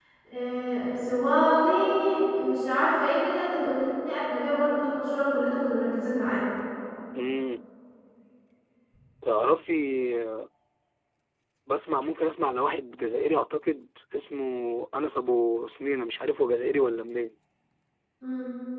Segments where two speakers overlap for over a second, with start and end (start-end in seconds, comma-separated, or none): none